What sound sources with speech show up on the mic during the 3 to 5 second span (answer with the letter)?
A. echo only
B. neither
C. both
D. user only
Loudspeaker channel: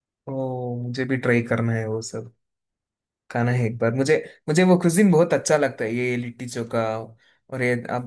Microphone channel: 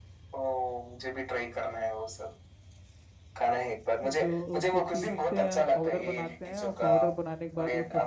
C